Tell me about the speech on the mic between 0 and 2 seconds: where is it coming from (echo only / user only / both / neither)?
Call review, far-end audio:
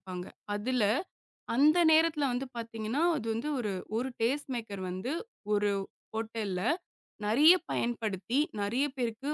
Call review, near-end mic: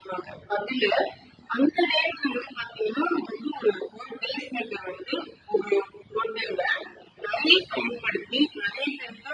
echo only